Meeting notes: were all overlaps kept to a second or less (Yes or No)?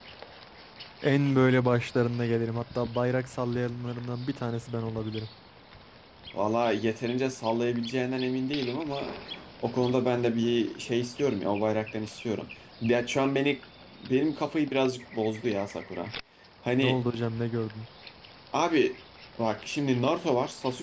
Yes